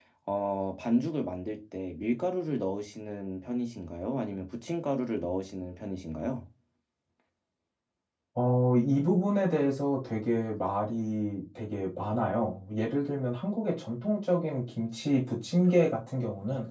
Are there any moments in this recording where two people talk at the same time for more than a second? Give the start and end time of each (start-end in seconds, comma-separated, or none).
none